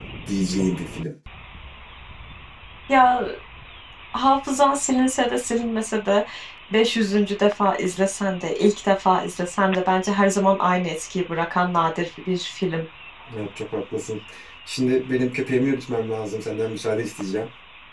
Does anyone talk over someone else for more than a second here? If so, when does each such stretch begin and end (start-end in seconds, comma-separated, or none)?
none